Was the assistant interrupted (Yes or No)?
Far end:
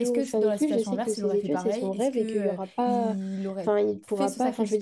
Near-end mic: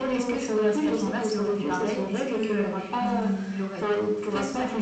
No